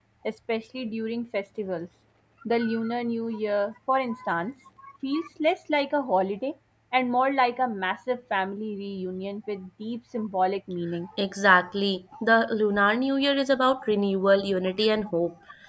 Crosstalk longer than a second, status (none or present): none